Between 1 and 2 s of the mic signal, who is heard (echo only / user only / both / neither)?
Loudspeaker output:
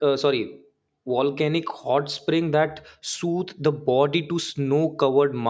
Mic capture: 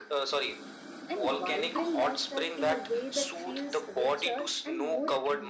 both